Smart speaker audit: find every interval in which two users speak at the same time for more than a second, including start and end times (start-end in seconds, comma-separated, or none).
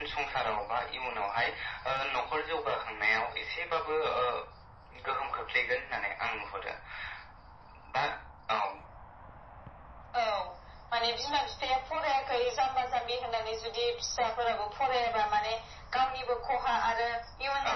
none